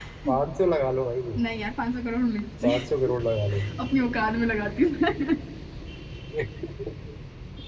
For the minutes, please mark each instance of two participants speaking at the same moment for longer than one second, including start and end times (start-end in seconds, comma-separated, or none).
none